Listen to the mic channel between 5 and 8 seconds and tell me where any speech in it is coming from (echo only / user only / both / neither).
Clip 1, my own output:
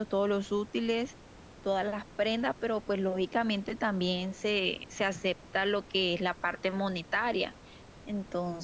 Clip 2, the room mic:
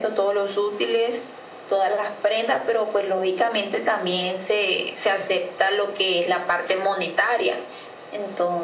echo only